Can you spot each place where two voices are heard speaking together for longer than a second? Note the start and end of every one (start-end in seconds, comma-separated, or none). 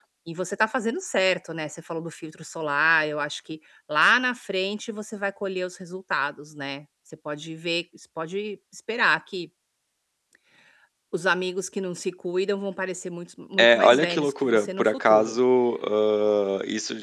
13.6-15.4